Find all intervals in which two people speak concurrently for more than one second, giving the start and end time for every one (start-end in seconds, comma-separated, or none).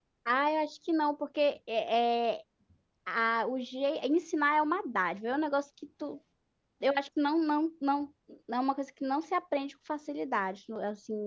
none